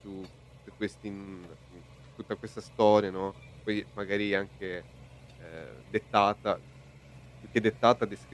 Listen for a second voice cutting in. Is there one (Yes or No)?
No